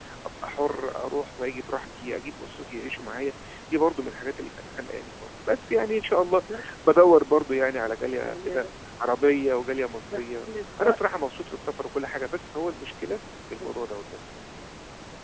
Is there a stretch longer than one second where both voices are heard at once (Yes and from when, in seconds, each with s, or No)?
No